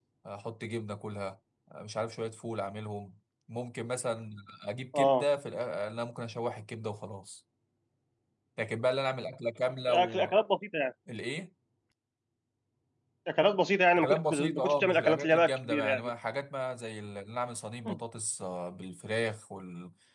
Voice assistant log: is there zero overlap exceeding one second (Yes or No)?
No